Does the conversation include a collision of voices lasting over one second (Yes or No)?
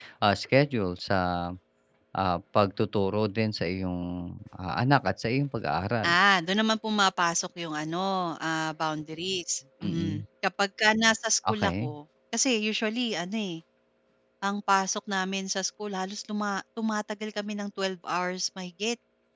No